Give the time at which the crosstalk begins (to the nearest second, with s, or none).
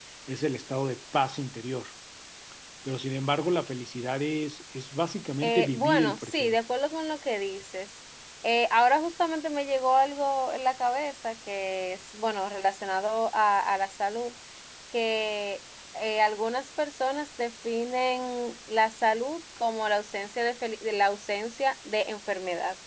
5 s